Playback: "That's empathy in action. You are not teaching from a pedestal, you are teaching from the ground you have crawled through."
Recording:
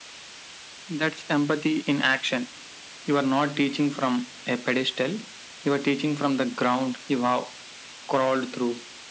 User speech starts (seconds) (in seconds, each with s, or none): none